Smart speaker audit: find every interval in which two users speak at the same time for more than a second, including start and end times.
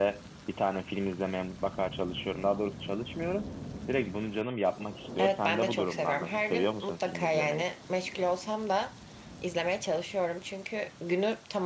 5.2-7.7

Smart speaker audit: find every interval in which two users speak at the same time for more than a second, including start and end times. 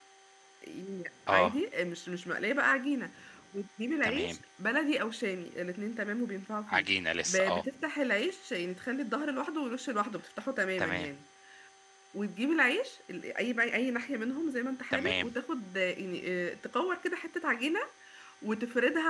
none

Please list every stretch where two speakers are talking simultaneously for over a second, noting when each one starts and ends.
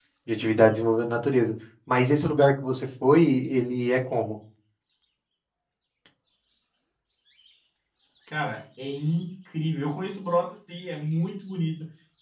none

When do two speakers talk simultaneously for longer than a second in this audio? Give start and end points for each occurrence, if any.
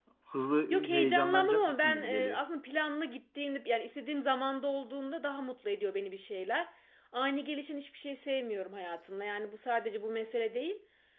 0.7-2.4

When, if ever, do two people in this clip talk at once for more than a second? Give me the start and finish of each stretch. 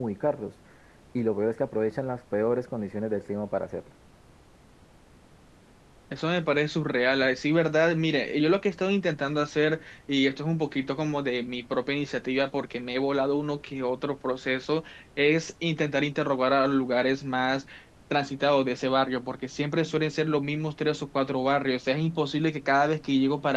none

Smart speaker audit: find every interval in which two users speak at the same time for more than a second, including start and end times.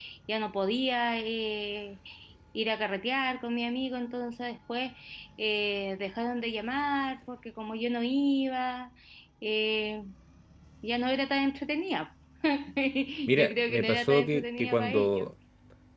13.3-15.2

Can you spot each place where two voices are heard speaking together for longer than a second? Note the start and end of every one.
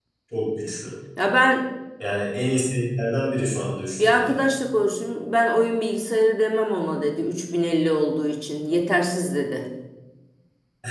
none

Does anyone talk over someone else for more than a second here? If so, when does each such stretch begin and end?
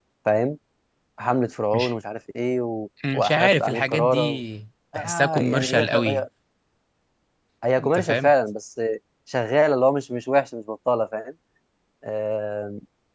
3.1-4.4, 5.0-6.3

